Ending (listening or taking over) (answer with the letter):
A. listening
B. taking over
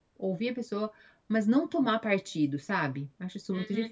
B